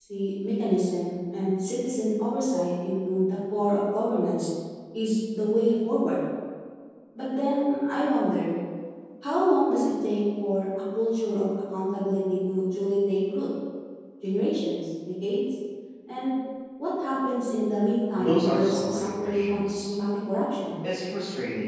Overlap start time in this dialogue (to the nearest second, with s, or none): 18 s